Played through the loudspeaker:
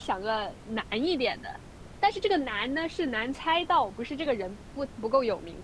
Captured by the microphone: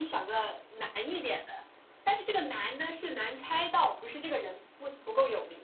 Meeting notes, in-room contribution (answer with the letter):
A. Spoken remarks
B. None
B